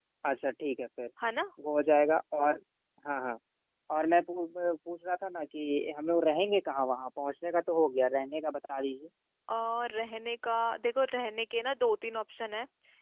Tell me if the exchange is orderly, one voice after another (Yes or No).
Yes